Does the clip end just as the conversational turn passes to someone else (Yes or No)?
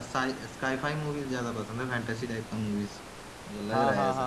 Yes